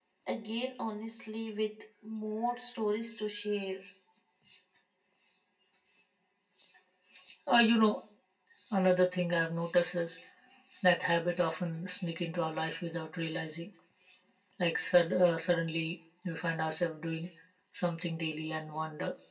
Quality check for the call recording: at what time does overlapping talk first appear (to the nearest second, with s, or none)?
none